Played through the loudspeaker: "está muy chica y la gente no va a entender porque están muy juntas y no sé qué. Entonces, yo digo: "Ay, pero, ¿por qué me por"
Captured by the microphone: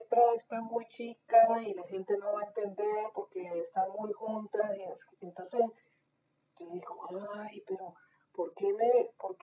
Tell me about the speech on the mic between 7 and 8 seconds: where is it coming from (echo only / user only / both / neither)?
echo only